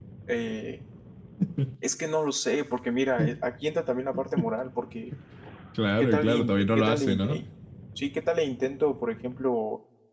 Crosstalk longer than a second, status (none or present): present